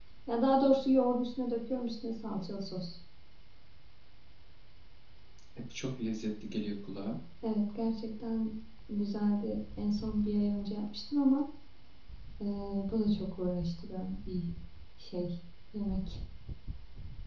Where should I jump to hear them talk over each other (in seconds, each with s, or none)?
none